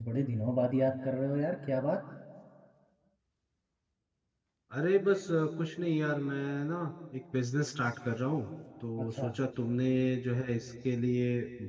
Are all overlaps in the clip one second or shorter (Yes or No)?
Yes